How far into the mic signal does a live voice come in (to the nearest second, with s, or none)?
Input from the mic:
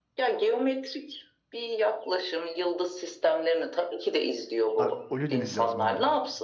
5 s